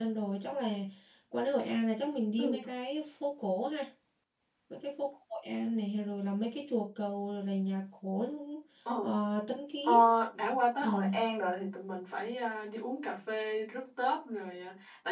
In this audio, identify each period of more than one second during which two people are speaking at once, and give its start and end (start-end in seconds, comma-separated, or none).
none